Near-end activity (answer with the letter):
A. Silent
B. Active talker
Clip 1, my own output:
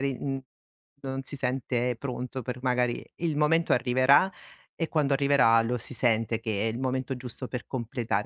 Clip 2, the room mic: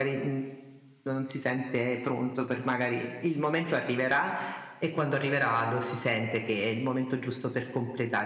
A